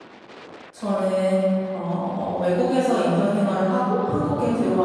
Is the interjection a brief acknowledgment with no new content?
Yes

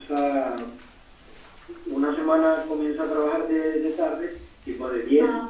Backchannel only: Yes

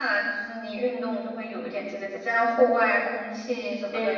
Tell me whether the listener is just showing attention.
No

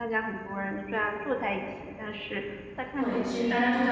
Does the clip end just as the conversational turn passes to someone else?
Yes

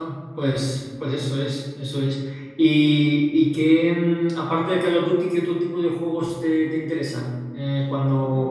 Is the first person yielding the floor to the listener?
No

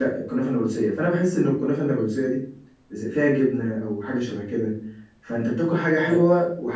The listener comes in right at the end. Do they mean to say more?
No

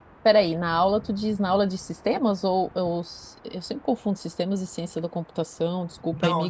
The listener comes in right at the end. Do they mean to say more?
Yes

